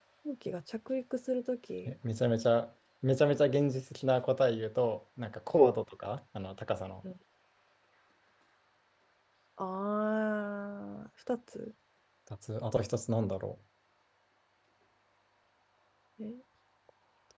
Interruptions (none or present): none